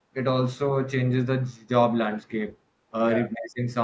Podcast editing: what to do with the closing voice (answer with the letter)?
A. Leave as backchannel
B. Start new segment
A